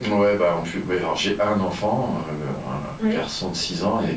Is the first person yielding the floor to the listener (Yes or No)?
No